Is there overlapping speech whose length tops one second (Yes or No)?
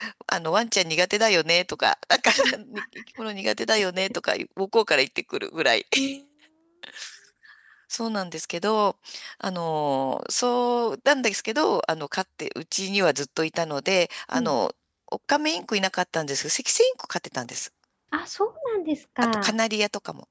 No